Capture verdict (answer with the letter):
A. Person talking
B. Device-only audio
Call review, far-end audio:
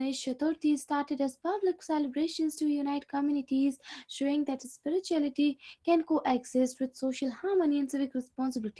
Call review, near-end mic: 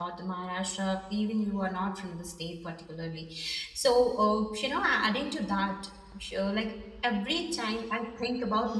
A